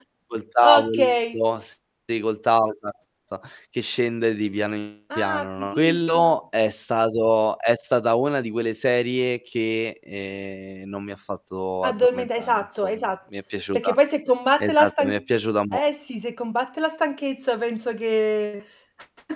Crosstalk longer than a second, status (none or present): present